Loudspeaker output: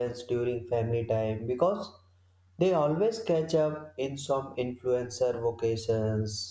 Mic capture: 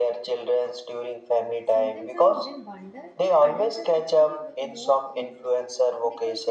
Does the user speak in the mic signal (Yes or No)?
Yes